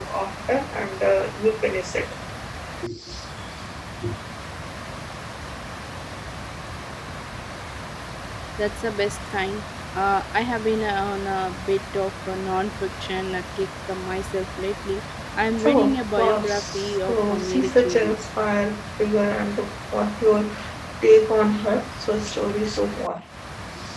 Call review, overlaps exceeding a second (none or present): present